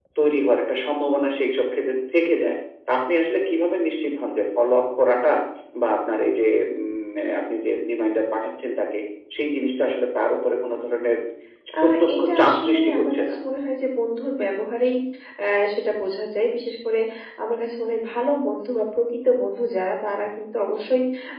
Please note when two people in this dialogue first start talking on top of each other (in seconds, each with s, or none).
11.8 s